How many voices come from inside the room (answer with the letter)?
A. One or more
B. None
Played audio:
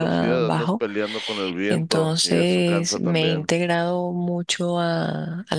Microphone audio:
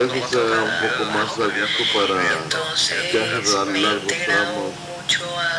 A